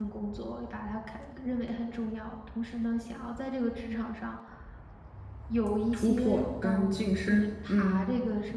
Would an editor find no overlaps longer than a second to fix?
No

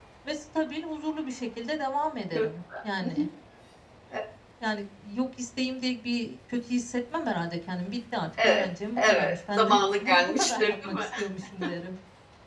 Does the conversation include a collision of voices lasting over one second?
Yes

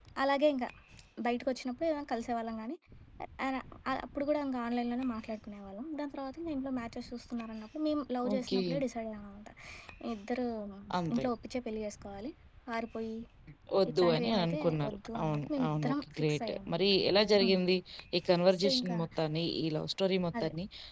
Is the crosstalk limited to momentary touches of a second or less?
No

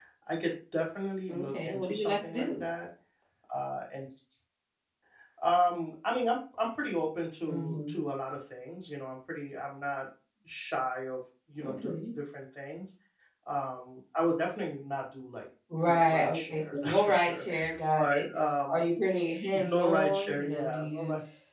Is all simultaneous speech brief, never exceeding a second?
No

